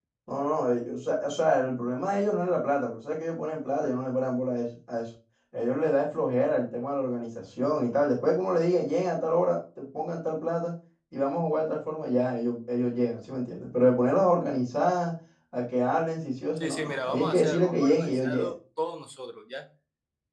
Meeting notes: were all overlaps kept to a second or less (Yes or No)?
No